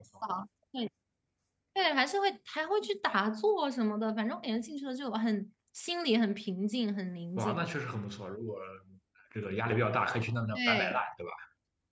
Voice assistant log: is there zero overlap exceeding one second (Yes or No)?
Yes